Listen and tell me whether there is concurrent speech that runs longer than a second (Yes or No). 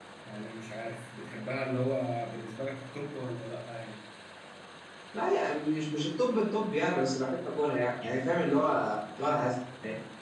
No